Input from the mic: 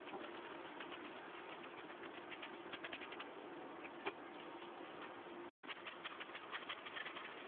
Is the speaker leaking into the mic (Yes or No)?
No